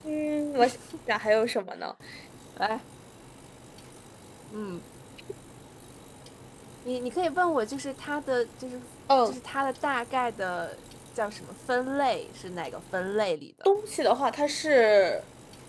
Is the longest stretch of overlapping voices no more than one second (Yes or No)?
Yes